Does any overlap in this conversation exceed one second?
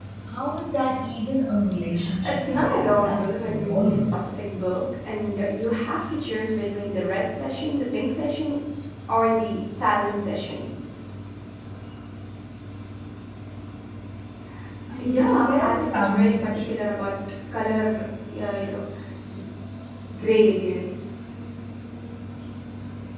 Yes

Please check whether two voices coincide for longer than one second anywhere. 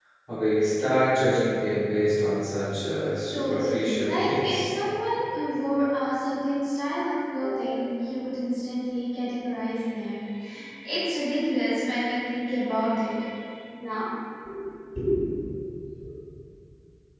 Yes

